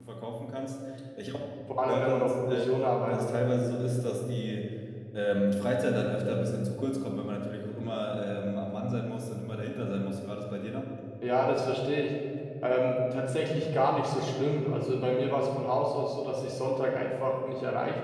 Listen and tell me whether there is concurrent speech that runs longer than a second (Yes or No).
Yes